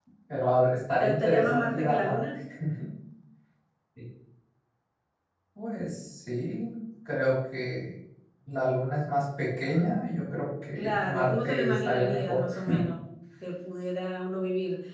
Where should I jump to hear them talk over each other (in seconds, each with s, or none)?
1.0 s